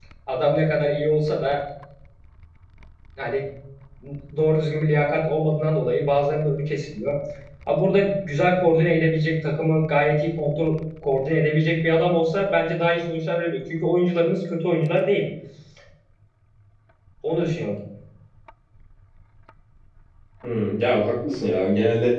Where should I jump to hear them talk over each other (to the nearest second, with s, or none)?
none